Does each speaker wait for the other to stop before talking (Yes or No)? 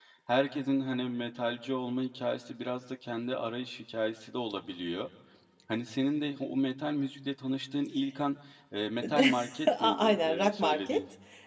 No